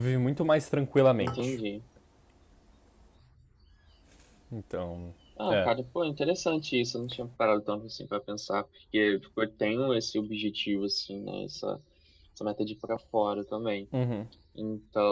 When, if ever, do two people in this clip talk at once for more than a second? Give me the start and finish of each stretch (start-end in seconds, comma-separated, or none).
none